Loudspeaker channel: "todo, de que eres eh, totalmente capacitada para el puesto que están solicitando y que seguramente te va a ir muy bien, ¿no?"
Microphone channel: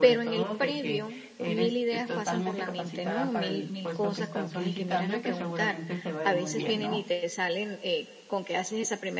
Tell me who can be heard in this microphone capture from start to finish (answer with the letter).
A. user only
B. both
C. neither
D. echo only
B